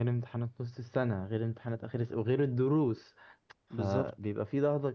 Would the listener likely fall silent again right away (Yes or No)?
Yes